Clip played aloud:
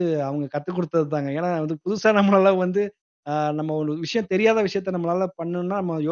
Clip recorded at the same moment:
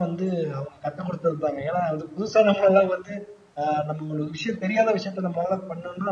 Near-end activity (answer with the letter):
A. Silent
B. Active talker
A